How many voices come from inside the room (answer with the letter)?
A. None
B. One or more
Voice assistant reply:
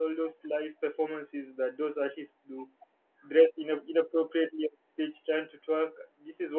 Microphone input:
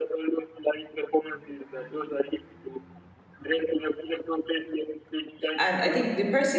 B